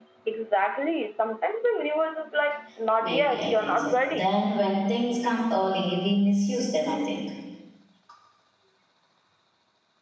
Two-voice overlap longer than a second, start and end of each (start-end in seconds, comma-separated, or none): 3.0-4.3